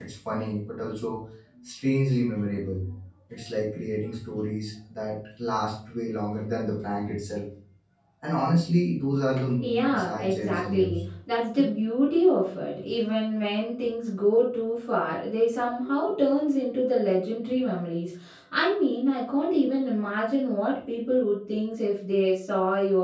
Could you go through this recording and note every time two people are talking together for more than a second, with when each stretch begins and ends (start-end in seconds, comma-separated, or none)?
9.6-11.0